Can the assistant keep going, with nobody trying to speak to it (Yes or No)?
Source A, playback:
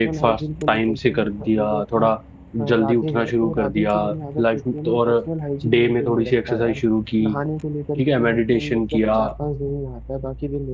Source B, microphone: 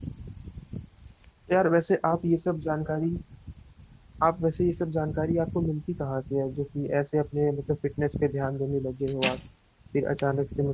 No